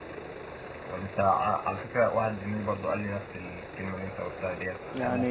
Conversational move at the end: listening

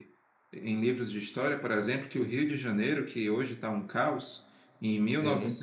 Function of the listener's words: listening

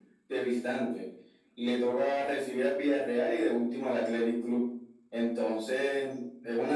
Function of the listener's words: listening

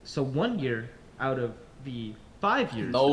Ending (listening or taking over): taking over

